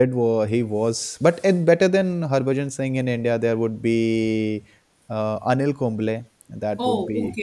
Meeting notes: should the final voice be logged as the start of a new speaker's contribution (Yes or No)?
Yes